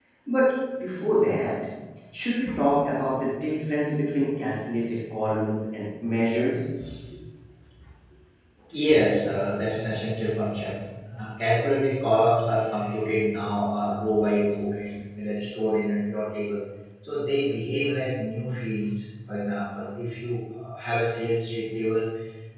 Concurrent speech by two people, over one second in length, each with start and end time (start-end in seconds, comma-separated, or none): none